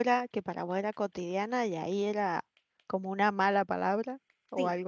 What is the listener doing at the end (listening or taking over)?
taking over